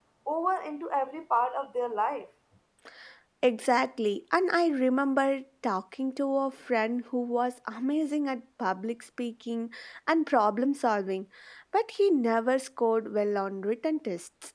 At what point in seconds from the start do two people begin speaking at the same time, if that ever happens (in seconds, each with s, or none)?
none